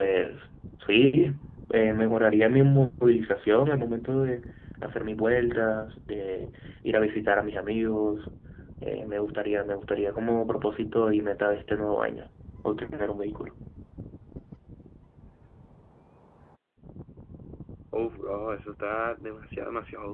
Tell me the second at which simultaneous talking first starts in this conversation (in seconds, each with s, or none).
none